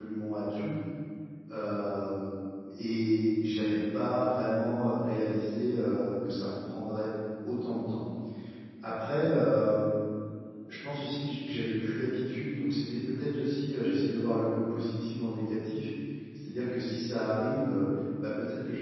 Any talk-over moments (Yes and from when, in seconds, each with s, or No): No